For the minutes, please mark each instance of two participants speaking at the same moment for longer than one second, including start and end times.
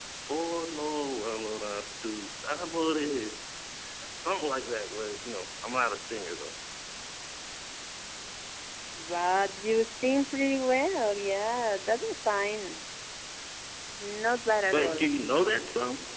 none

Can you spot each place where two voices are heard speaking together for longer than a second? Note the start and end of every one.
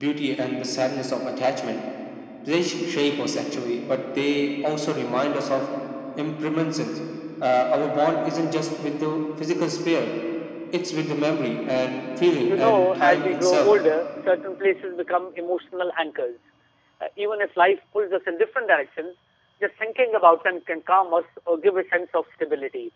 12.4-13.7

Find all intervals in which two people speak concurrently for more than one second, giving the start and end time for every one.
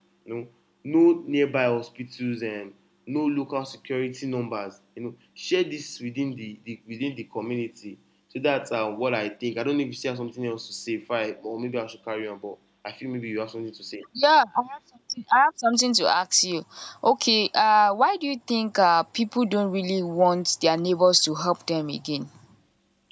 none

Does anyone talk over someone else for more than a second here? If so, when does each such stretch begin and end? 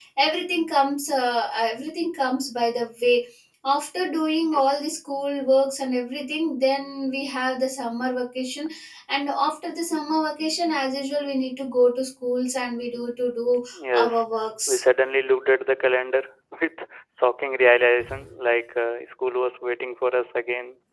none

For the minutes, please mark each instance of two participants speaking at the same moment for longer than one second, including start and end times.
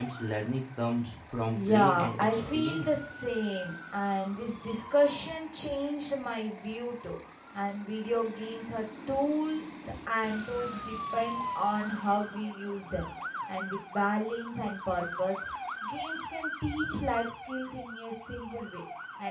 1.5-2.9

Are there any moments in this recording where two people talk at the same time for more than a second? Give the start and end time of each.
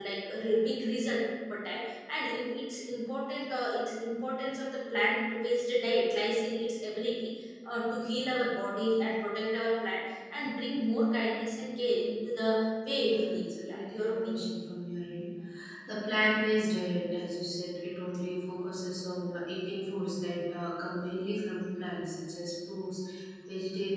13.0-14.4

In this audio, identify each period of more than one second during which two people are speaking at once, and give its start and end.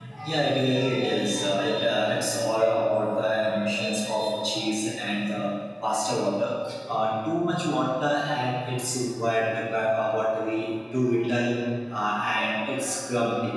none

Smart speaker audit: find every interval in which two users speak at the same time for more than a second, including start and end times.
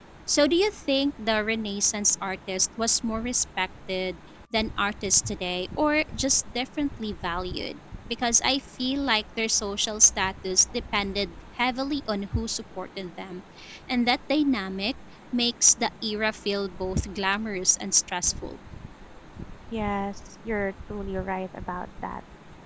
none

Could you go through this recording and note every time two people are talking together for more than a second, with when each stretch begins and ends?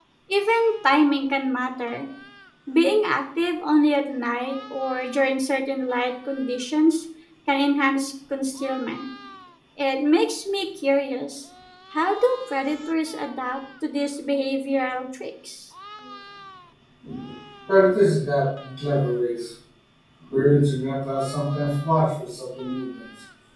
none

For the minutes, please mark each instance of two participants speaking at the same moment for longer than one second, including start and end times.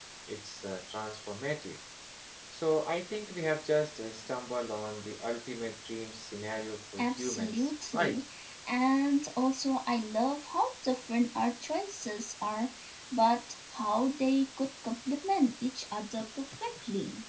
7.0-8.2

